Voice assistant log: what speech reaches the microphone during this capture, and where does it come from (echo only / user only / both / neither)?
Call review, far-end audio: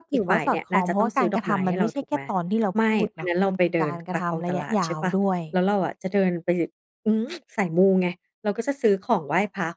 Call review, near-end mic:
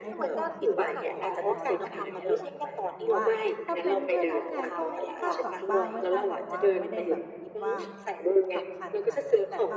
both